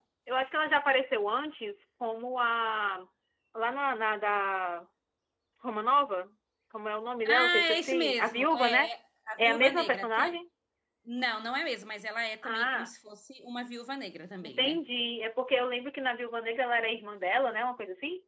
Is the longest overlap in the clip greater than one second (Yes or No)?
Yes